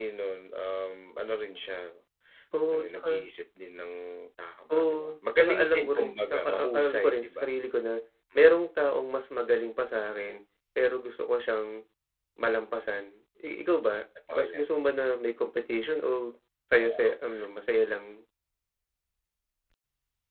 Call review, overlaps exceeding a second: present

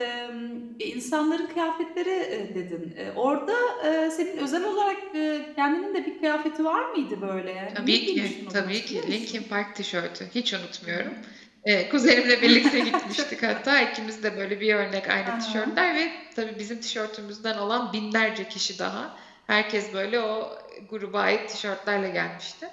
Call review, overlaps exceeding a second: present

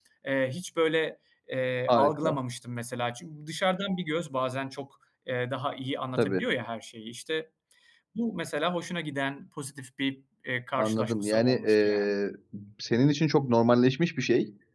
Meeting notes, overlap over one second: present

